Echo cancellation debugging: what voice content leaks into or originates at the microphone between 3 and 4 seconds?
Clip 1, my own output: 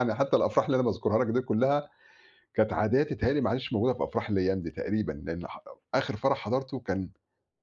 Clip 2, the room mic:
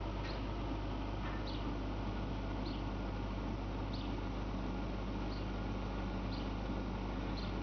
neither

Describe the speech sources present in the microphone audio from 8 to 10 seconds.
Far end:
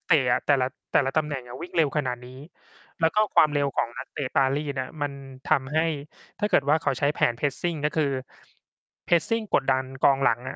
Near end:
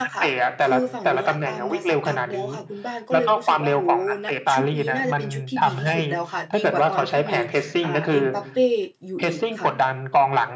both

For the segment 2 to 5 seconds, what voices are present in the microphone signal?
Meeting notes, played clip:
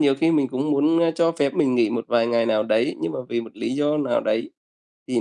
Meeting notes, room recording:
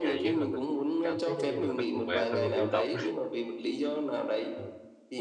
both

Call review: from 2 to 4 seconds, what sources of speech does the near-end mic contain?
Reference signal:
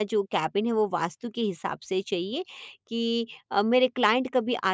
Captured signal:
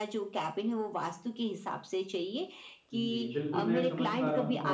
both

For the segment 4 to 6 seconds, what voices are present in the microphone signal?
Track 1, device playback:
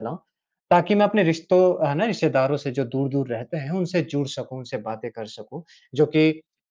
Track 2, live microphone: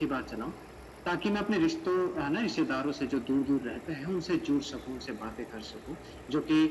echo only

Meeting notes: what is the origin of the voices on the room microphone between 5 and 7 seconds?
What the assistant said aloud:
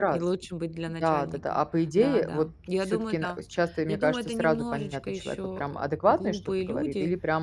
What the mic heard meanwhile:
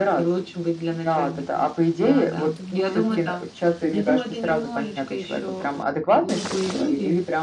echo only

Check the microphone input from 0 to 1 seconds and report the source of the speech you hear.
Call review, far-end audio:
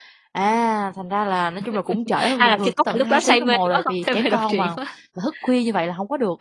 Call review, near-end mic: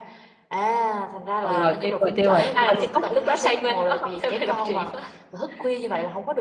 echo only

